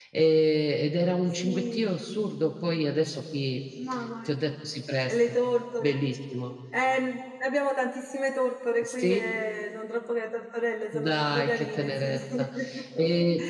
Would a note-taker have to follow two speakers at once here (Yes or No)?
Yes